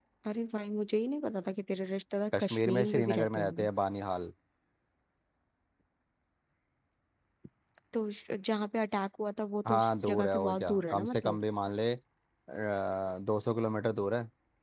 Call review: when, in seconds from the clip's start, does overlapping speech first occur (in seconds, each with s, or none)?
2.4 s